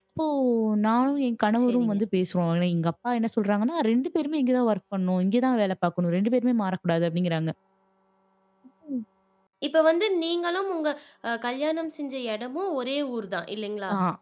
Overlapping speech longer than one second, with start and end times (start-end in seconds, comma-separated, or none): none